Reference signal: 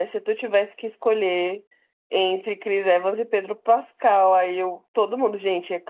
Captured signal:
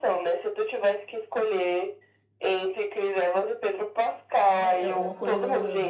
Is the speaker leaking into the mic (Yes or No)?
Yes